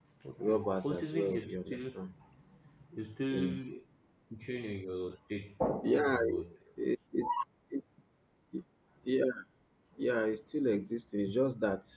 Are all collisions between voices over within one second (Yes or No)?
No